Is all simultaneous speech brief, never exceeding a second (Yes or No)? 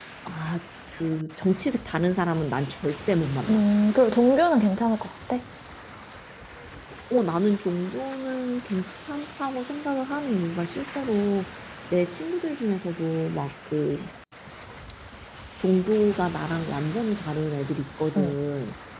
Yes